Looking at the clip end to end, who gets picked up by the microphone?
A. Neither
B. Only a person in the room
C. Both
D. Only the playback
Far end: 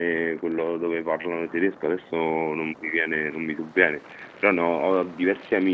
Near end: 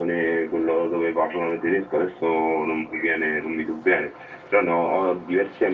D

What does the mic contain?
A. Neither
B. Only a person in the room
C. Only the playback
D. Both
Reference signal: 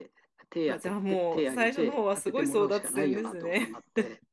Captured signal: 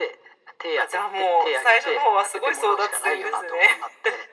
C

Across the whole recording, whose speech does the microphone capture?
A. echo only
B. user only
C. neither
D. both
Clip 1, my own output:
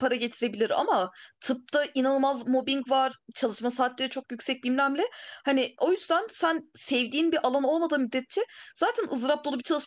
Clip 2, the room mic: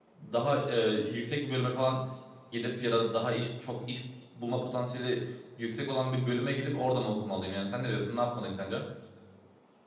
B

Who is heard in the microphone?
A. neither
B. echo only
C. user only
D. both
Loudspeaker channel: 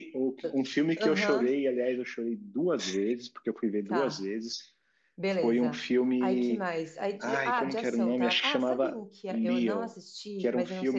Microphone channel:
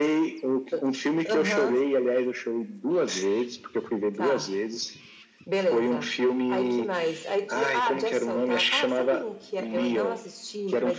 B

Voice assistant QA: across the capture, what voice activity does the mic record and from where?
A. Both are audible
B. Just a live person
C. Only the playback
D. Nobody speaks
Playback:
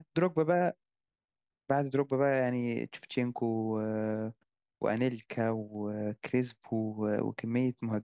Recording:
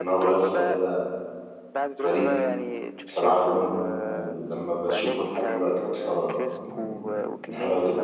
A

